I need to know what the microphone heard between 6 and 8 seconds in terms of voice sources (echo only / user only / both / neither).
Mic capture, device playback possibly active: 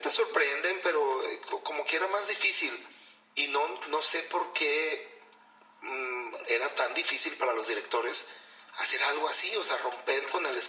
echo only